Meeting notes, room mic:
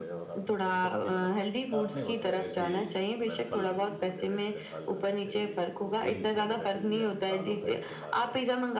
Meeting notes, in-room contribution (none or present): present